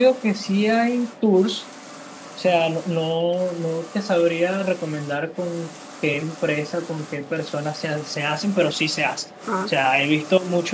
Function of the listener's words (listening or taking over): listening